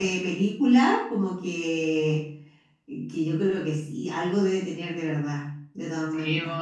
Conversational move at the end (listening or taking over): taking over